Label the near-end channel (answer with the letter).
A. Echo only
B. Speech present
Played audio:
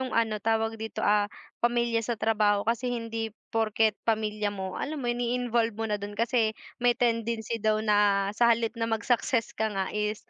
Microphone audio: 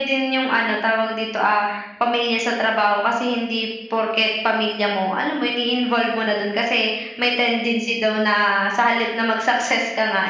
A